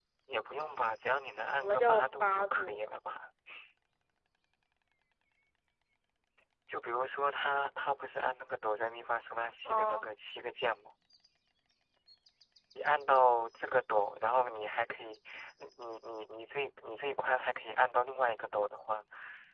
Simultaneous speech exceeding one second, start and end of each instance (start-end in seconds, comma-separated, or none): 1.6-3.0